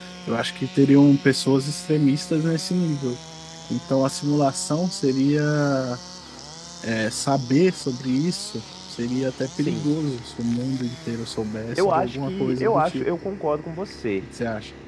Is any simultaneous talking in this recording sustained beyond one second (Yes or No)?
Yes